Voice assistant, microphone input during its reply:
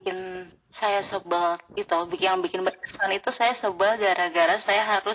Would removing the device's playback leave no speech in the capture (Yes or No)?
Yes